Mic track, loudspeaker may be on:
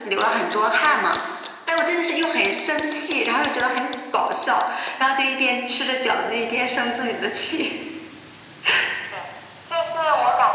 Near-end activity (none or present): none